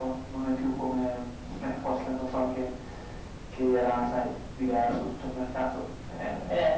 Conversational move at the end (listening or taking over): listening